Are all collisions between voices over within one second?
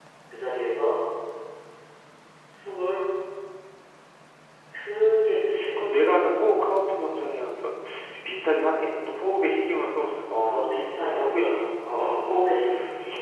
No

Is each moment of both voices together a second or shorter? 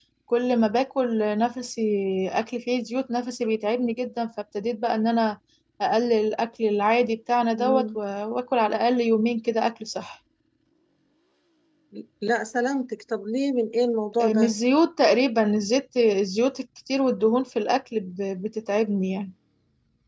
Yes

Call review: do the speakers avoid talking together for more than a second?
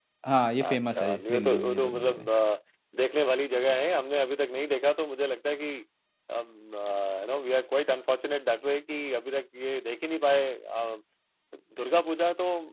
No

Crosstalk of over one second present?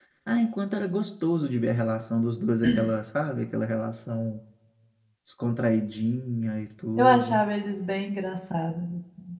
No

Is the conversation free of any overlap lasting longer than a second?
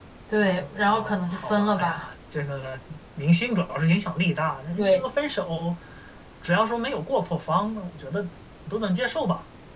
No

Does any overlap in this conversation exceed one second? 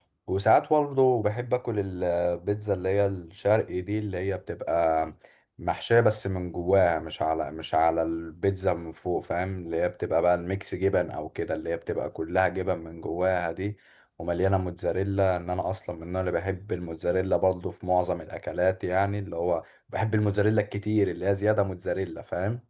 No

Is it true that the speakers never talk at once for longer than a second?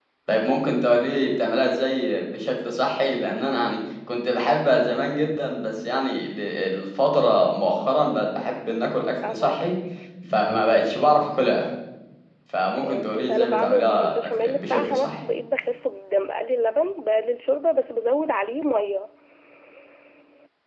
No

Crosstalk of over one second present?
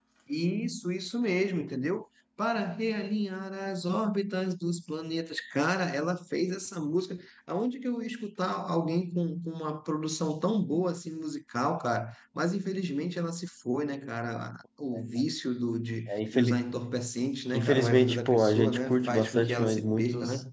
Yes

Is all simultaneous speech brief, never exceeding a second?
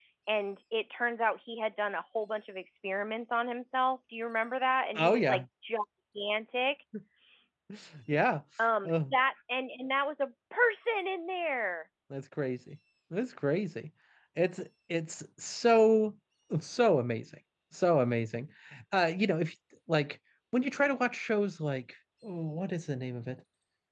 Yes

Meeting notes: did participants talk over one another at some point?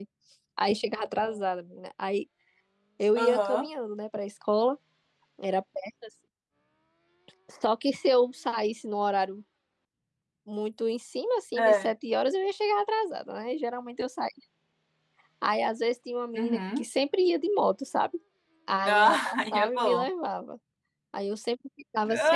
Yes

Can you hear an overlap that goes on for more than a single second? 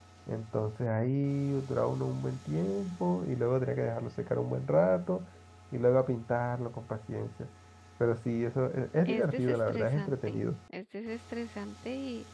Yes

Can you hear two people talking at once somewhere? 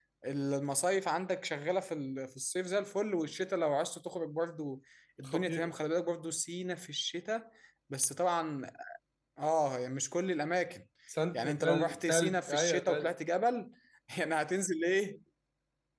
Yes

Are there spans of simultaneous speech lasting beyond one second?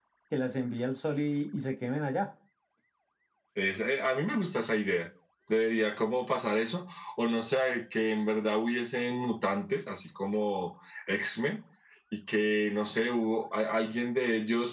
No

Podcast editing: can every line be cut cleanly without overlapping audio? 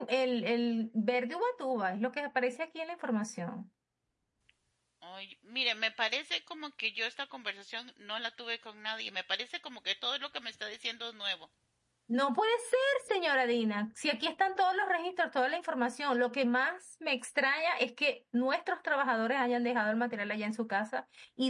Yes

